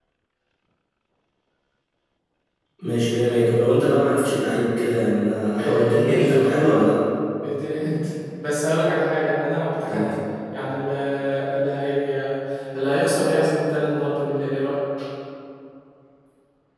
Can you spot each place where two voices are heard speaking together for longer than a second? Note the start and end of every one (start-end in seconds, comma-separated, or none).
5.6-6.9